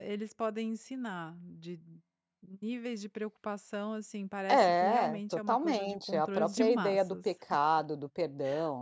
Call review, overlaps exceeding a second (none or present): present